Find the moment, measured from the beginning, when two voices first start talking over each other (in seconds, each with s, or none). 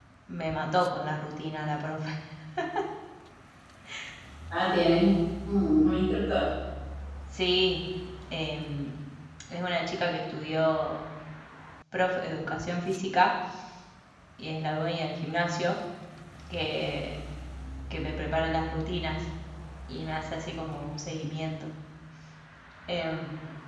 none